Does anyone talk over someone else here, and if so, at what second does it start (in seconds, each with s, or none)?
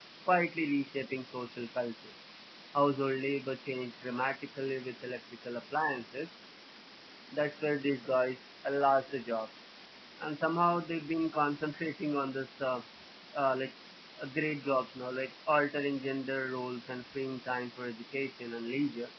none